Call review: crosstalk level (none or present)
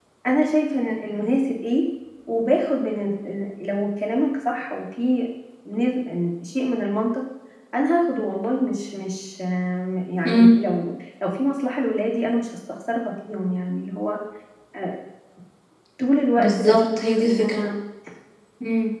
present